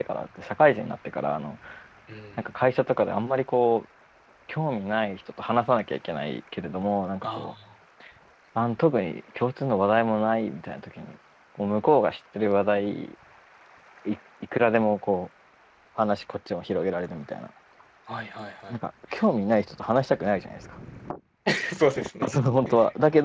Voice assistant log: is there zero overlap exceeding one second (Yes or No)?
Yes